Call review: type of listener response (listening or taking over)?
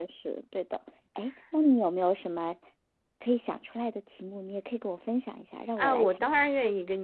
taking over